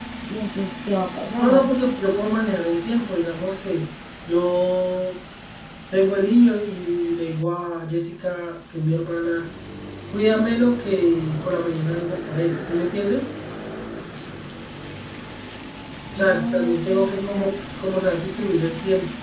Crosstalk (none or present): present